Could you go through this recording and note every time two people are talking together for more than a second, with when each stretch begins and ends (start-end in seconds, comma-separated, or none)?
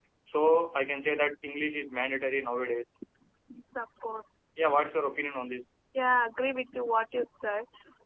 none